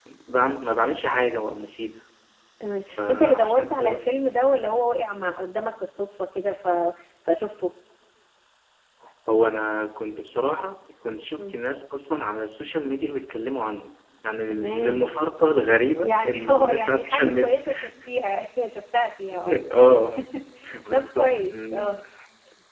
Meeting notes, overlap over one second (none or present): present